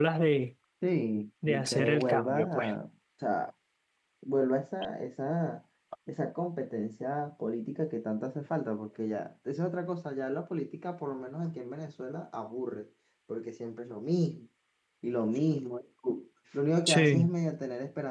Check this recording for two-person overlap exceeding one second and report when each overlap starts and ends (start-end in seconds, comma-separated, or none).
1.5-2.7